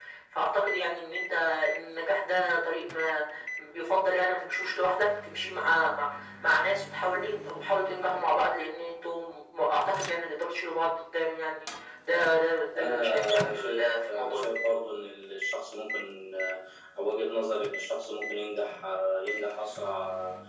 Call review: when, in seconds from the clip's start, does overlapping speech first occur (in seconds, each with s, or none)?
12.8 s